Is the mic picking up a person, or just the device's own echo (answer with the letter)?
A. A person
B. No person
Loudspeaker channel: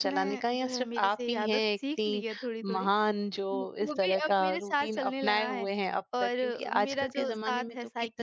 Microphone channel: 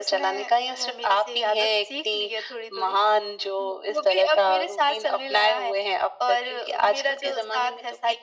B